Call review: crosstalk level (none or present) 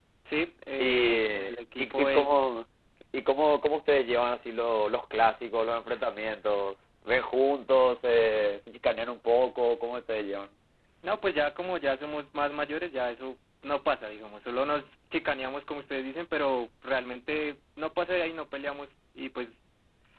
present